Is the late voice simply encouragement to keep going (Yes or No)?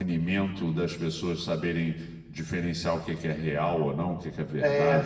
No